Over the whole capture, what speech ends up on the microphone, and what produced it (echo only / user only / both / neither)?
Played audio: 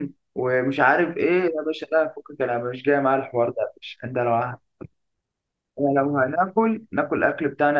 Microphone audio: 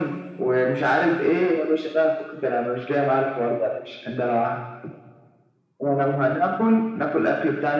echo only